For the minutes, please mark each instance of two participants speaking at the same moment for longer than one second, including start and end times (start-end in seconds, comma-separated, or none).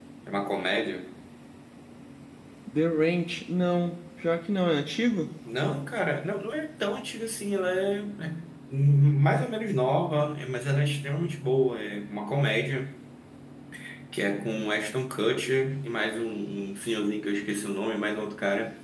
none